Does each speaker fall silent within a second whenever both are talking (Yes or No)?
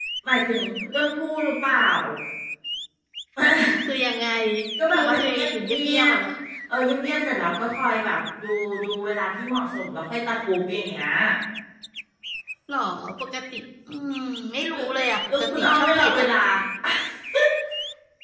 No